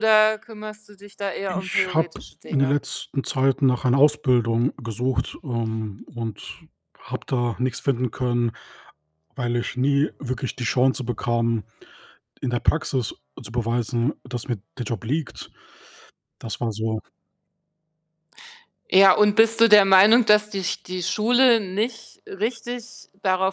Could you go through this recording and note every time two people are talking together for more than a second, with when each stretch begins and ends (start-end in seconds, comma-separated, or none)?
1.5-2.7